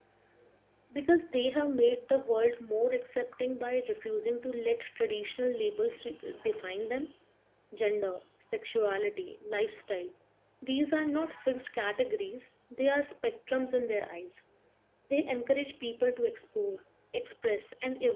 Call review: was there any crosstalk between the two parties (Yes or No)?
No